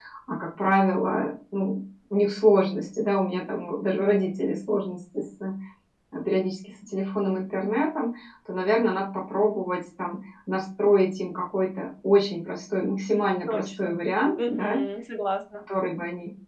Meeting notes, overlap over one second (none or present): none